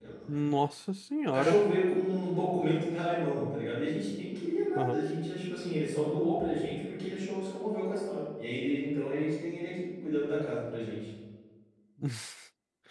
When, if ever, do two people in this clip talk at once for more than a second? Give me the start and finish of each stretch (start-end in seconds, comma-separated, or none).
none